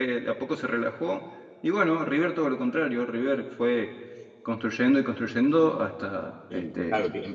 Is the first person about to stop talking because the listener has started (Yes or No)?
Yes